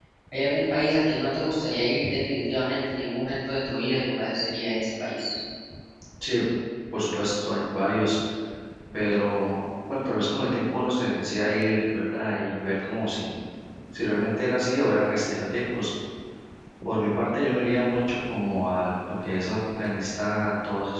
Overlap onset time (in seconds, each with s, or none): none